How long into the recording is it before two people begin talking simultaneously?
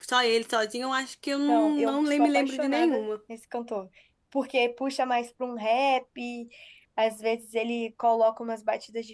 1 s

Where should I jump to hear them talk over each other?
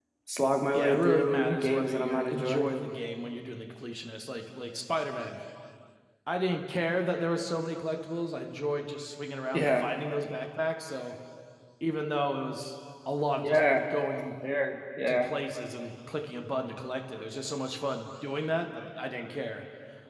1 s

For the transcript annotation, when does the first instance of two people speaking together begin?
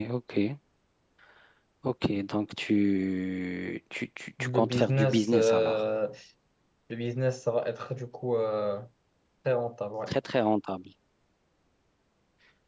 4 s

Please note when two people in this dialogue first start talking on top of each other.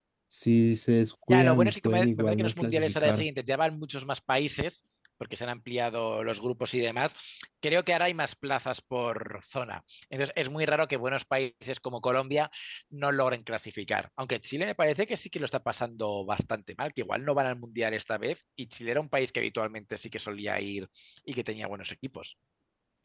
1 s

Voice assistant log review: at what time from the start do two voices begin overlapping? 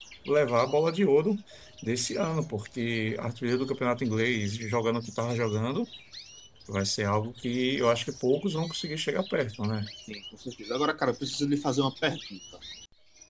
none

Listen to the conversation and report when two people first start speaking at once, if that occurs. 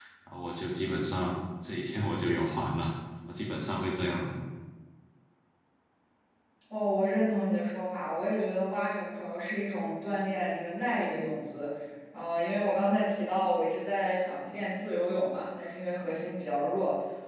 none

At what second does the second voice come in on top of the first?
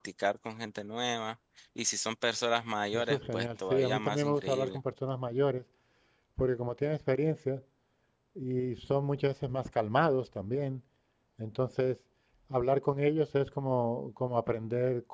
3 s

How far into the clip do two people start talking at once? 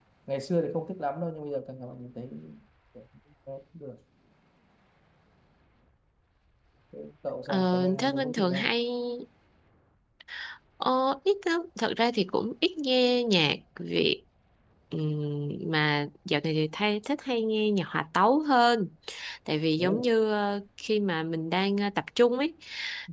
7 s

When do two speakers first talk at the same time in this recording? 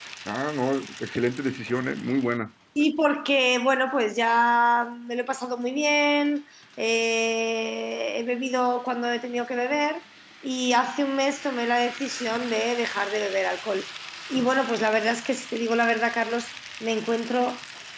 none

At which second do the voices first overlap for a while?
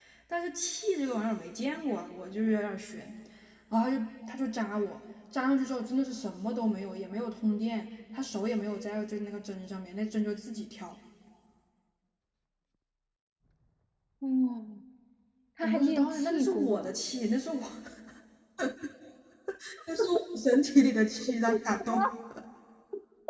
16 s

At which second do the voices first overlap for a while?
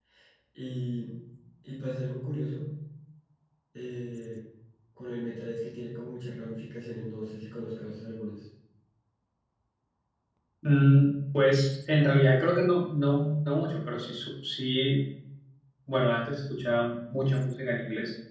none

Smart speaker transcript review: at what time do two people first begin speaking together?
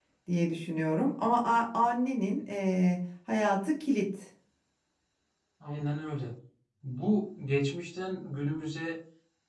none

